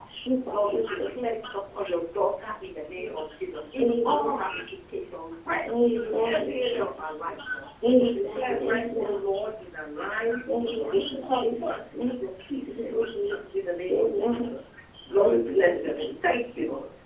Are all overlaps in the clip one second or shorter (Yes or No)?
No